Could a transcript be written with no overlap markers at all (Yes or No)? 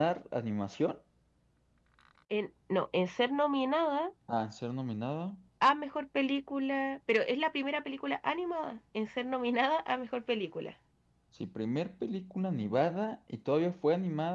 Yes